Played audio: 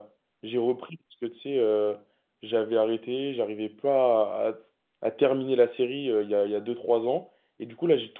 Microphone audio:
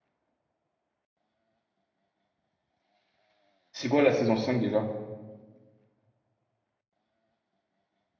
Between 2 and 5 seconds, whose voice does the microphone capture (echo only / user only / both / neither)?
user only